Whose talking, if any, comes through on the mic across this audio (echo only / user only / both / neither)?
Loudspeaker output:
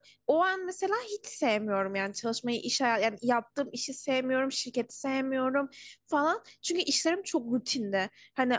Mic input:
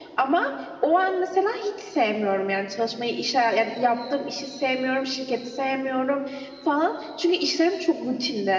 echo only